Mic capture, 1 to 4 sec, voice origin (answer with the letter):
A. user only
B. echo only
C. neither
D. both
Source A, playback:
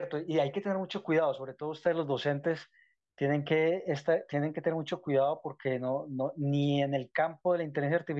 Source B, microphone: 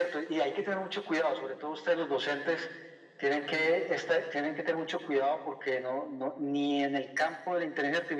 B